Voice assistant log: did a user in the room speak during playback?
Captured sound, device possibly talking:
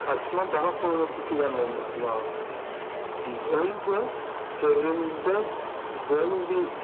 No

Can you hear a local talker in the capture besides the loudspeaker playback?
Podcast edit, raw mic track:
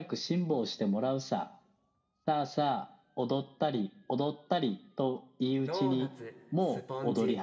Yes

